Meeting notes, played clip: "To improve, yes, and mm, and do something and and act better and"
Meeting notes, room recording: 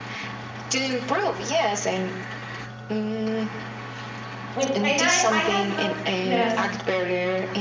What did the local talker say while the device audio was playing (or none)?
and, and I I had not yes,